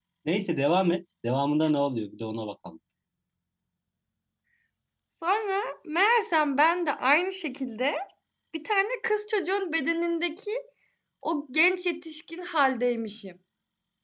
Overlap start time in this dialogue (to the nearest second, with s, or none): none